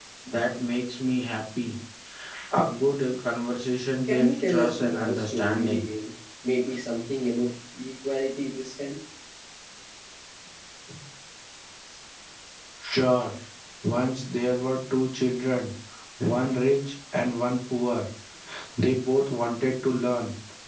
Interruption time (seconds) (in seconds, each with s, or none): 4.1 s